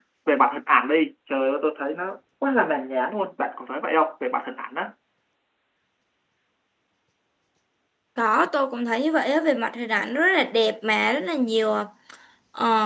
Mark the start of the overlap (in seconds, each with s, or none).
none